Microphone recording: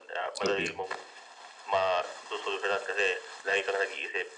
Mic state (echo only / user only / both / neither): both